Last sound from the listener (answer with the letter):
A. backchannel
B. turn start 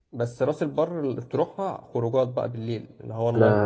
B